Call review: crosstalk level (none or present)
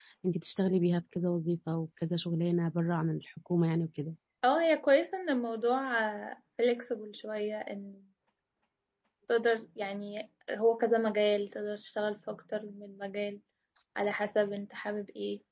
none